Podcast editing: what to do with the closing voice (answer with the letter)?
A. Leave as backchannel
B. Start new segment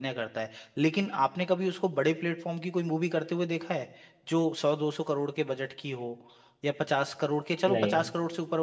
A